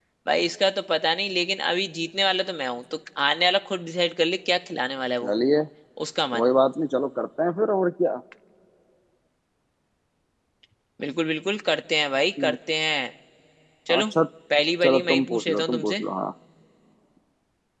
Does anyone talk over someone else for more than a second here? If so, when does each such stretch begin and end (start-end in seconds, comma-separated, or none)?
14.8-16.0